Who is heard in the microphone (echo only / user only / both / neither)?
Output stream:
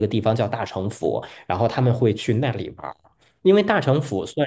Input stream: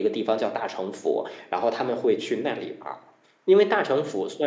echo only